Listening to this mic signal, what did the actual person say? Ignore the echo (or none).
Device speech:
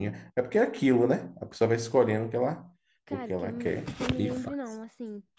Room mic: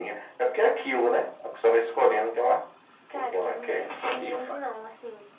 none